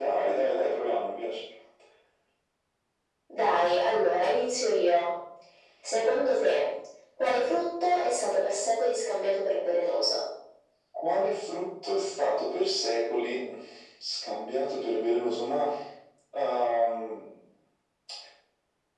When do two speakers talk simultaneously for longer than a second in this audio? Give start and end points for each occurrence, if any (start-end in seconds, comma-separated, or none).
none